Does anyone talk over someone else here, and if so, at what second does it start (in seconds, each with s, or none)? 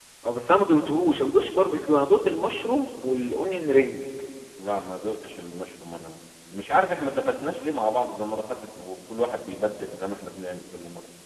none